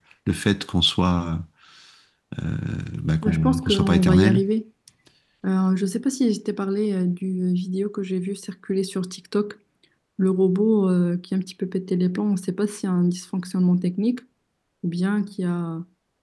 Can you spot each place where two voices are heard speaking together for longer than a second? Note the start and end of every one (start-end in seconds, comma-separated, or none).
3.2-4.4